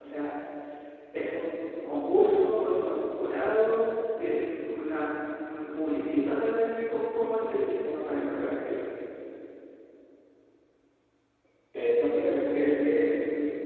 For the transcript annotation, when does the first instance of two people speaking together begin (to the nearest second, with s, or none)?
none